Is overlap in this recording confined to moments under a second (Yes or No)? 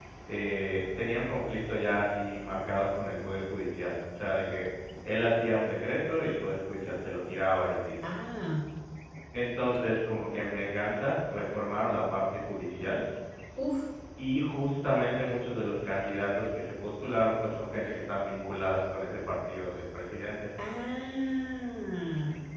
Yes